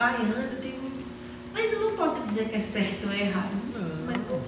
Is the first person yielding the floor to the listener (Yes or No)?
No